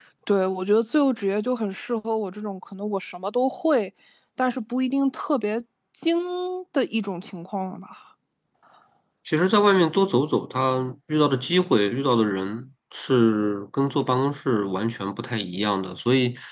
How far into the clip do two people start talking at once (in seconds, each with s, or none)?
none